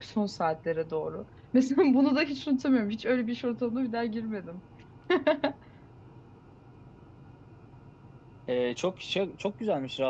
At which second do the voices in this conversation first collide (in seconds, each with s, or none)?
none